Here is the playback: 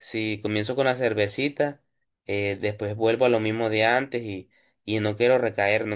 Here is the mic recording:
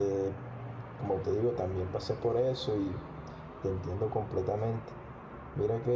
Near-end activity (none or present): present